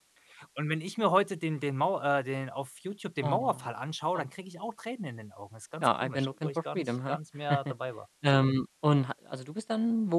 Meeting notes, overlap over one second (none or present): present